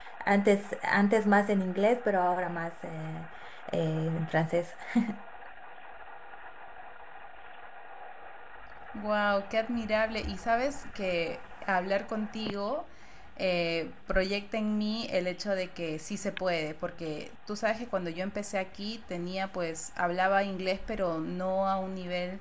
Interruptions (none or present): none